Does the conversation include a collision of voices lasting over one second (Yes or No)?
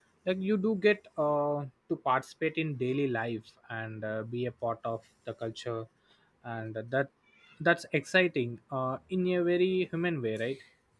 No